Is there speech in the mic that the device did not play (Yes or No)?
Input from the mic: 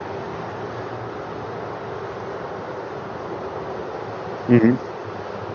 Yes